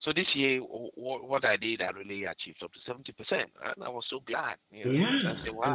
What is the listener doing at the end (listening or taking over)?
taking over